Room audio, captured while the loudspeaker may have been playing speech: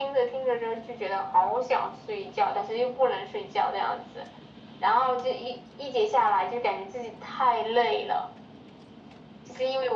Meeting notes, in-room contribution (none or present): none